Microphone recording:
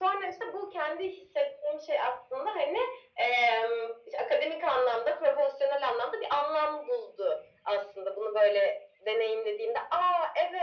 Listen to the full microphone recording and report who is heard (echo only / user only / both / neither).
echo only